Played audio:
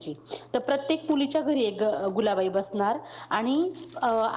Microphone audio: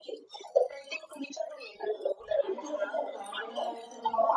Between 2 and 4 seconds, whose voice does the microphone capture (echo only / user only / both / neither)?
both